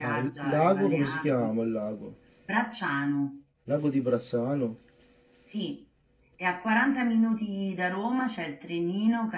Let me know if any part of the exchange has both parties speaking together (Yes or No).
Yes